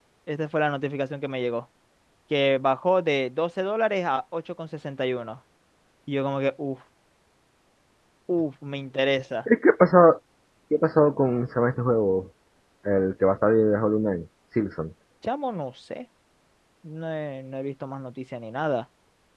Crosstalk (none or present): none